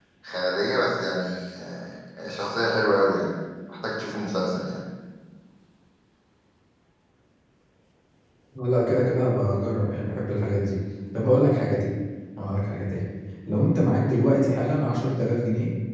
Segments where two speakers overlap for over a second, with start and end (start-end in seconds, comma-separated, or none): none